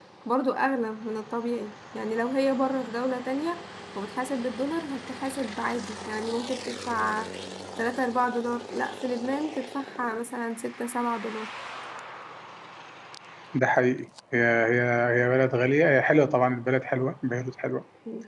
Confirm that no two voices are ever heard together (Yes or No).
Yes